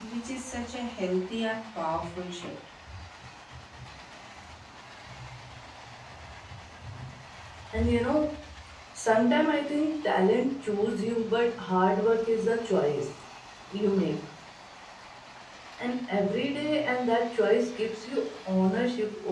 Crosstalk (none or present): none